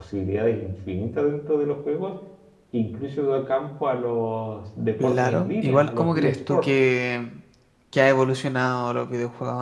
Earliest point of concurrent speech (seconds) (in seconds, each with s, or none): 5.0 s